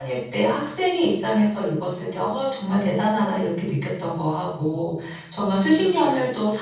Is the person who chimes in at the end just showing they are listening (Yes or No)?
Yes